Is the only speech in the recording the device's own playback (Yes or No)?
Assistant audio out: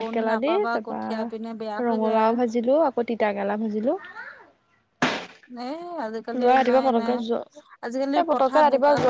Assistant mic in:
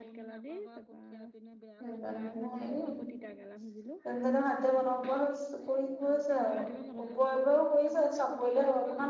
No